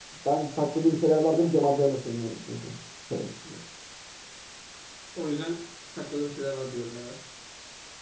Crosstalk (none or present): none